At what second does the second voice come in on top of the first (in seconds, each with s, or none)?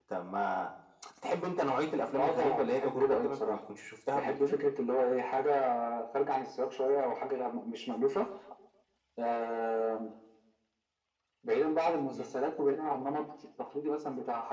2.2 s